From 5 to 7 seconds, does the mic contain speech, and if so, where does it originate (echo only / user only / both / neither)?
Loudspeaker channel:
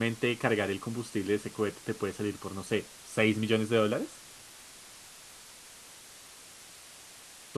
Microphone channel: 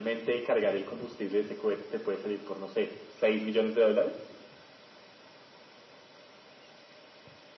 neither